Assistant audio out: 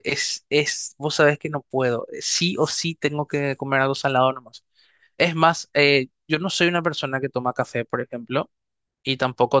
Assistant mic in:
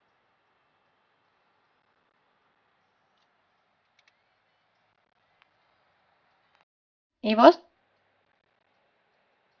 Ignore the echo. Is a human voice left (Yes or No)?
Yes